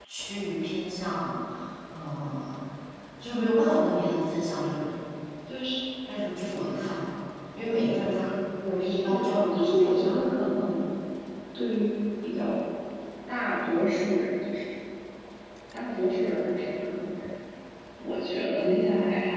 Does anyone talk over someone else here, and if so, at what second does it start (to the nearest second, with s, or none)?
9 s